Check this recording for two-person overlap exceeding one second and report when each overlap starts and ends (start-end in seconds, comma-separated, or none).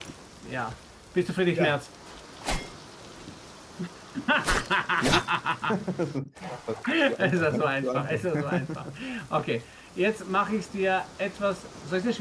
7.1-8.9